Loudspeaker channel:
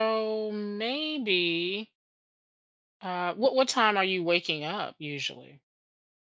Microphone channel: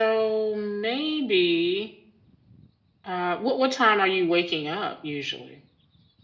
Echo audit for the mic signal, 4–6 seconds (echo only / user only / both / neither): echo only